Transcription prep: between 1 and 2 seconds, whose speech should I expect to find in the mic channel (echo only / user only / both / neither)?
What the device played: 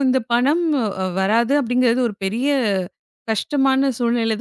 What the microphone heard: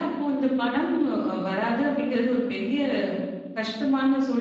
echo only